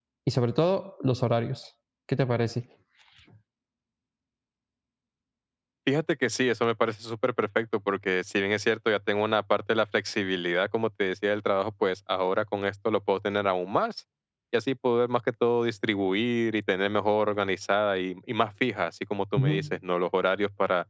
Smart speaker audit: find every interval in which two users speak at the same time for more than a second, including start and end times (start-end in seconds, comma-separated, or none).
none